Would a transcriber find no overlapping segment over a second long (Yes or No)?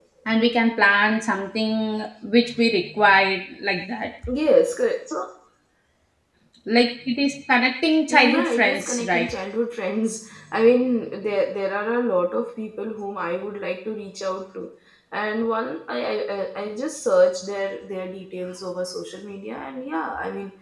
No